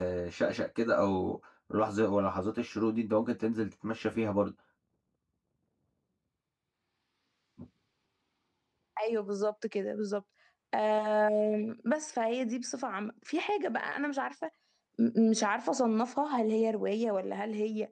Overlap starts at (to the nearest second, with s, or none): none